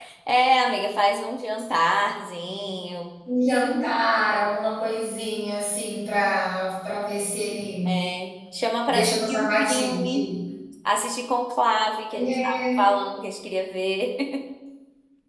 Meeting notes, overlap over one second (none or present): present